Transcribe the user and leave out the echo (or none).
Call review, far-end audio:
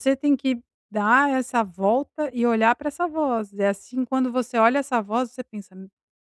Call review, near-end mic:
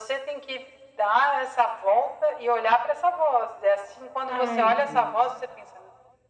Ai Deus.